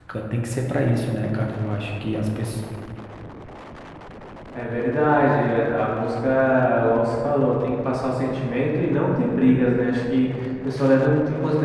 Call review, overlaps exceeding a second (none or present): none